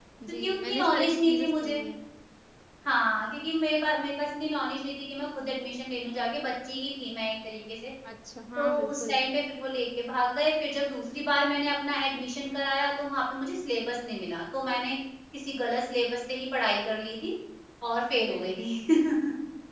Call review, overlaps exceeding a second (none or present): present